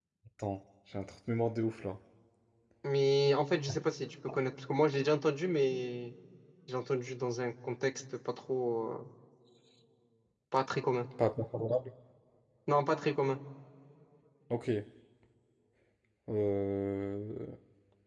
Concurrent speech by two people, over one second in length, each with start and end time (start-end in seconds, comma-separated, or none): none